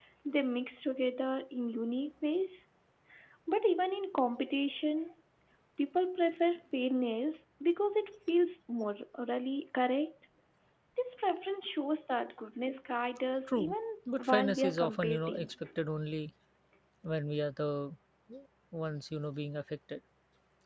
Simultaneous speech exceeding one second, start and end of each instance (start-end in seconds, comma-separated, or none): 14.2-15.5